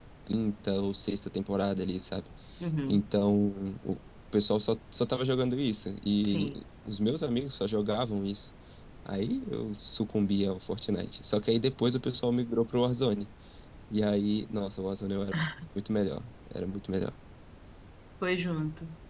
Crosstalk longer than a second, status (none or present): none